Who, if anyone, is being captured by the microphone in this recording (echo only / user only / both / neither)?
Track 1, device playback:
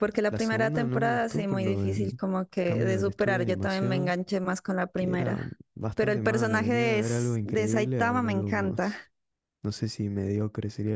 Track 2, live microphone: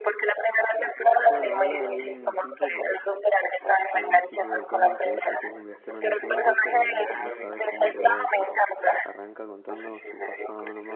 both